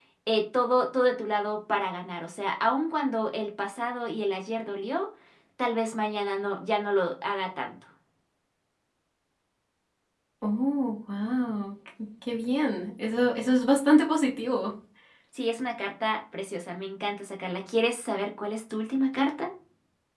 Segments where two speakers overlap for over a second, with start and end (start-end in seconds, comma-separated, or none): none